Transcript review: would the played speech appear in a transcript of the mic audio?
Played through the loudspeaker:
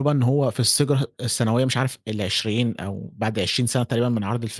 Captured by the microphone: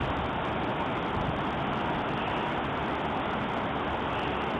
No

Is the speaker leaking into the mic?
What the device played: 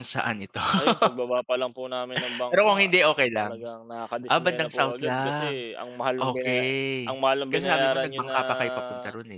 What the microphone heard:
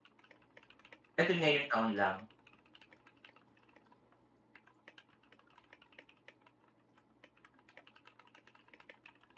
No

